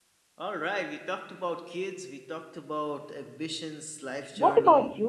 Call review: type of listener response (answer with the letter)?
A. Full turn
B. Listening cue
A